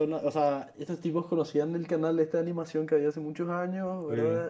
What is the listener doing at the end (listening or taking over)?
listening